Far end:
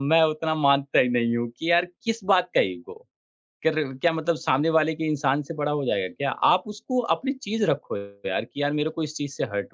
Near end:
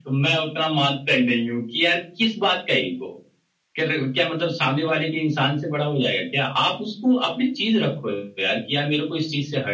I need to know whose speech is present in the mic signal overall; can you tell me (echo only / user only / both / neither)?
echo only